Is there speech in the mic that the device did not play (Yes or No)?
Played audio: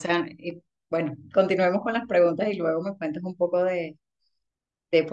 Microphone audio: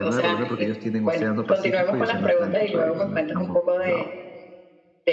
Yes